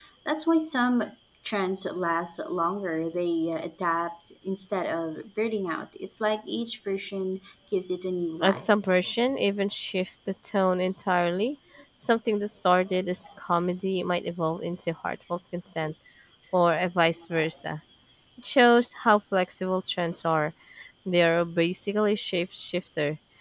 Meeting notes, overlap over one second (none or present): none